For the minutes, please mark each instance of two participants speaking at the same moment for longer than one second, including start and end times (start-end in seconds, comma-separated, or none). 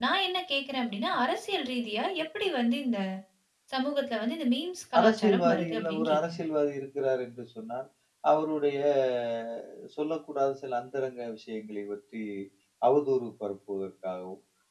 5.0-6.4